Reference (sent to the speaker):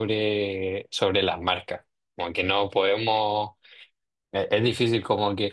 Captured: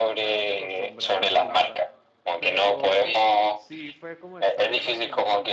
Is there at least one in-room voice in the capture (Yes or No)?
Yes